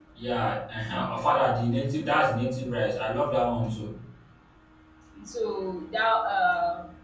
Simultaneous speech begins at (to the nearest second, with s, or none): none